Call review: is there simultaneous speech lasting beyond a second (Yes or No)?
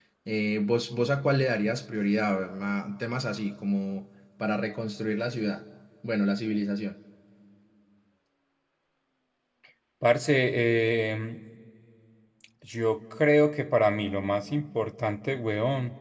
No